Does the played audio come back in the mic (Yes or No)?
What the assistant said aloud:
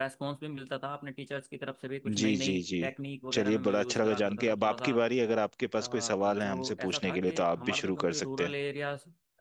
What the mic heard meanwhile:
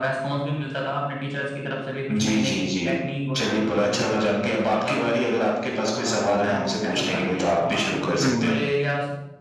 Yes